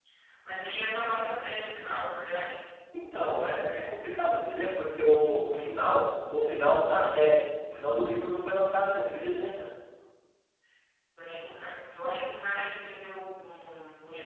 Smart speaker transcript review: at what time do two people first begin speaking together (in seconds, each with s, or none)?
none